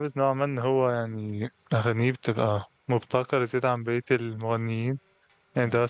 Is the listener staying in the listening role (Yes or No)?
Yes